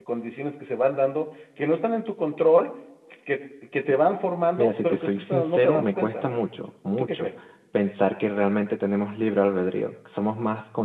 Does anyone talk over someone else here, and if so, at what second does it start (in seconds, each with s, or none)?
4.6 s